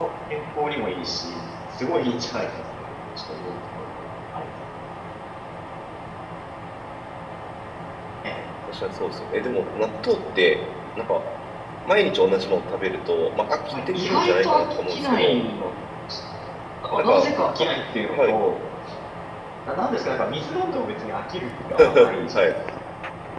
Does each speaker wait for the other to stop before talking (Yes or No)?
No